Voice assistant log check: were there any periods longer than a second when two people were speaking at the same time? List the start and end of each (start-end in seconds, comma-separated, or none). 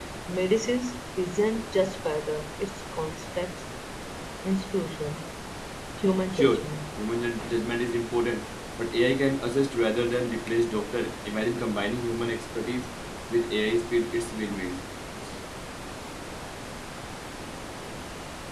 none